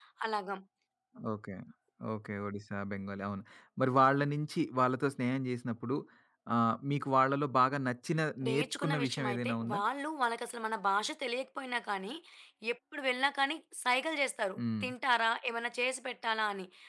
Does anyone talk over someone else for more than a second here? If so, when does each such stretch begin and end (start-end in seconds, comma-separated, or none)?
8.4-9.8